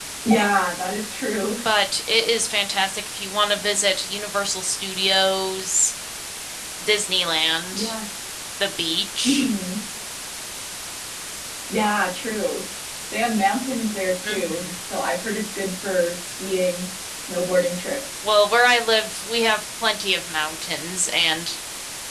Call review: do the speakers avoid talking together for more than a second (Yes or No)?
Yes